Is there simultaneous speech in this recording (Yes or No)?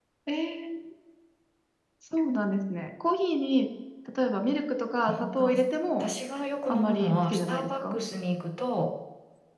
Yes